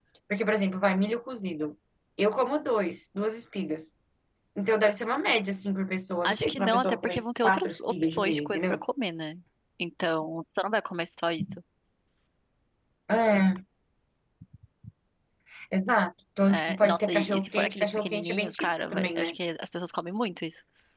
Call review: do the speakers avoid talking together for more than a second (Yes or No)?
No